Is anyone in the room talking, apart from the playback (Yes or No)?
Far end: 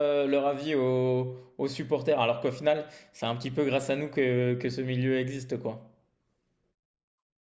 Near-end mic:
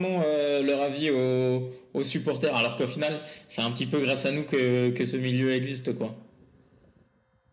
No